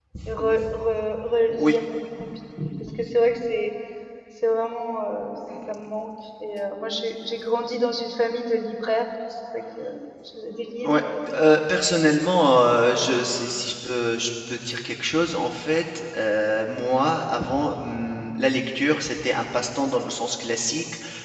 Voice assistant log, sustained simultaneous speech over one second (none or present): present